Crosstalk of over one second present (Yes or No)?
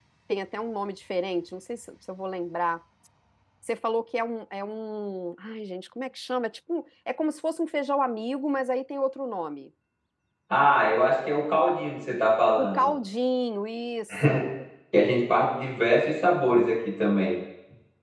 No